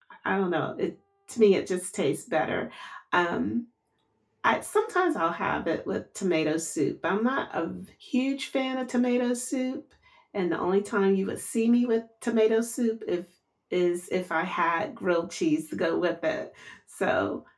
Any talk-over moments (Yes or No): No